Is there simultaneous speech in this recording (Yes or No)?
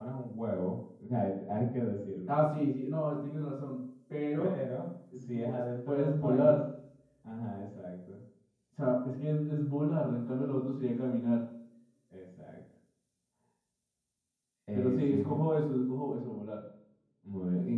Yes